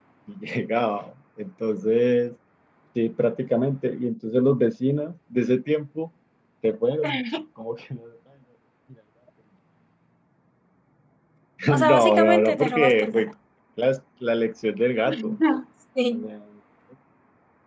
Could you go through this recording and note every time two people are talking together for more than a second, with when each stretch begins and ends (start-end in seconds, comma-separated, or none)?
11.9-13.3